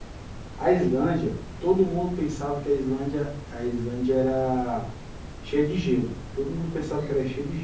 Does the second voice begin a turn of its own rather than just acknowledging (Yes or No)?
No